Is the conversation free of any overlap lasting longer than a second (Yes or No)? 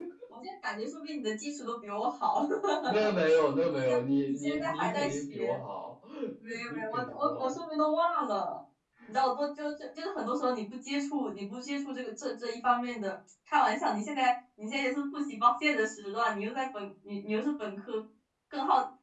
No